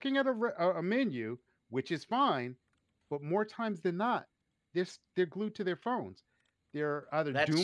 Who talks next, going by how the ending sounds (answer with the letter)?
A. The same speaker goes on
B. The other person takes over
A